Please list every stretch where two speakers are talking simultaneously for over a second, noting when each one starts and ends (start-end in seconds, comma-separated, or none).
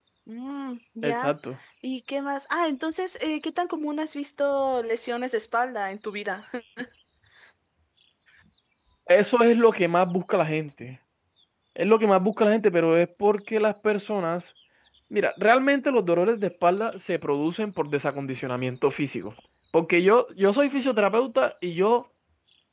none